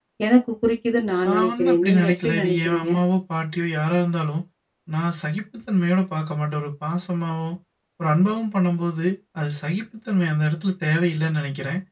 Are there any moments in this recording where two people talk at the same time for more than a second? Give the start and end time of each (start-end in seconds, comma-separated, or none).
1.3-2.9